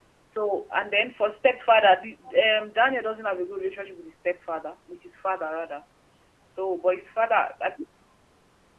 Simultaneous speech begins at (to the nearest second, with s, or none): none